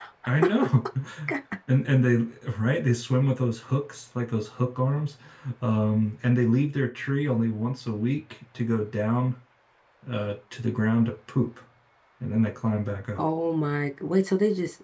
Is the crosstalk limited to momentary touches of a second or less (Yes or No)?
Yes